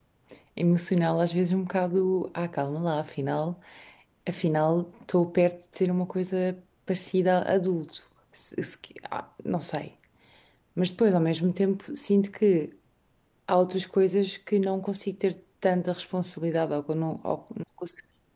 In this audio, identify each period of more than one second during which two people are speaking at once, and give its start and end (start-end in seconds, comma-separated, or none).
none